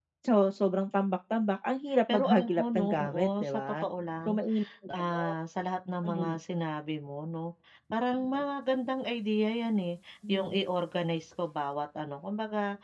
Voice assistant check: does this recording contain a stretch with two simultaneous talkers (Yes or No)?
Yes